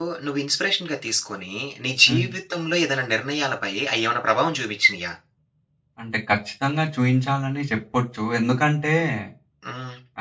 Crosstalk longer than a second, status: none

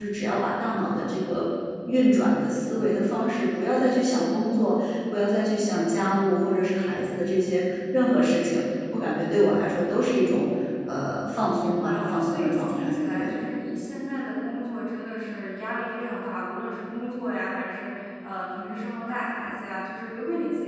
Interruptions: present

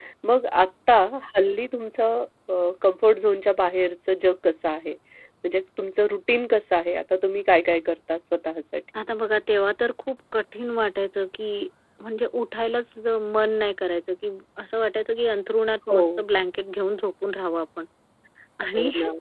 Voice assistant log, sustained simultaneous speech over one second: none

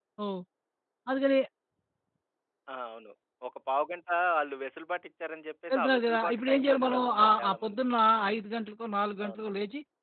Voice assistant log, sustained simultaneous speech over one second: present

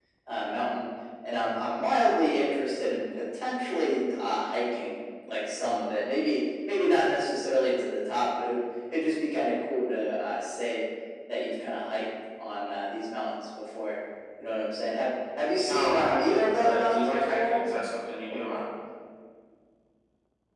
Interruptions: present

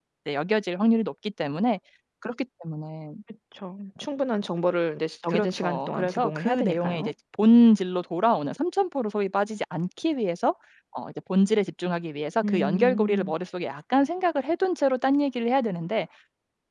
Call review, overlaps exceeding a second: present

